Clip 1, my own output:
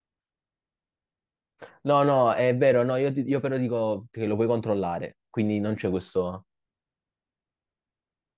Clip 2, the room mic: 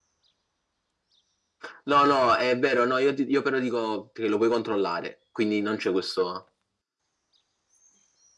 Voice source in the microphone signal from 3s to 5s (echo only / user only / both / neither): echo only